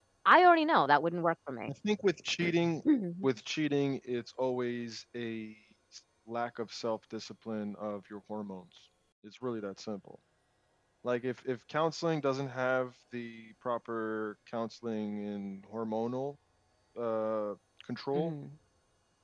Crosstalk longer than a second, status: none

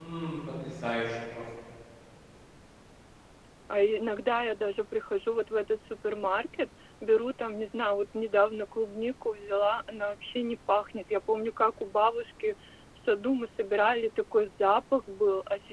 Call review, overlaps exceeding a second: none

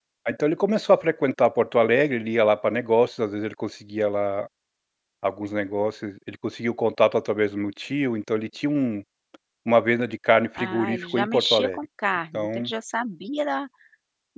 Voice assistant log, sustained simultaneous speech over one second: present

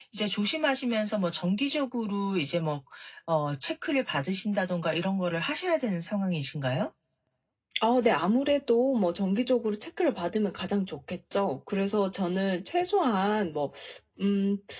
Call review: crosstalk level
none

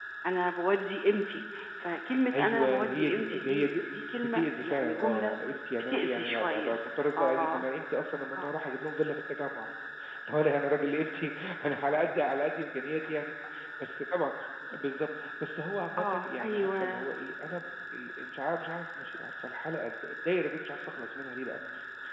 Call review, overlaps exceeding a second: present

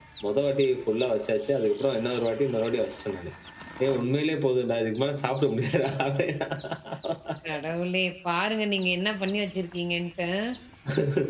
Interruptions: none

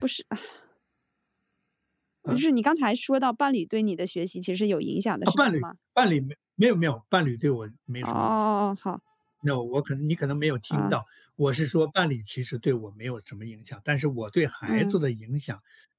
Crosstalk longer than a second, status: none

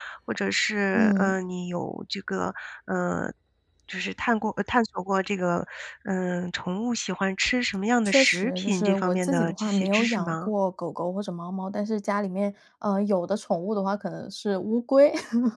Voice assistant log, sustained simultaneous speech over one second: present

